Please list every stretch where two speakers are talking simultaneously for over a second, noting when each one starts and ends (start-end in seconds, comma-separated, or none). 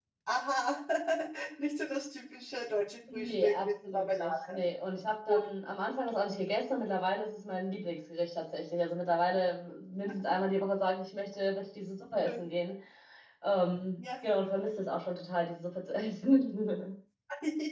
3.1-4.6